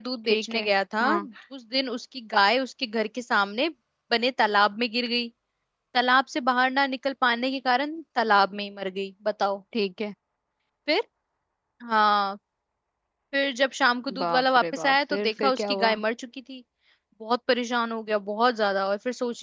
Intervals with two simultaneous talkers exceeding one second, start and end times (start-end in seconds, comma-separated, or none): 14.2-15.9